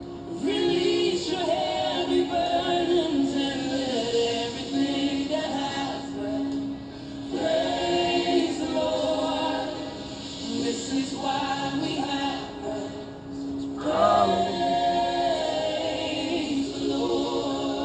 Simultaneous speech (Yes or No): Yes